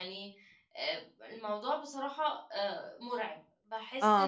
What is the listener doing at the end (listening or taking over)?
taking over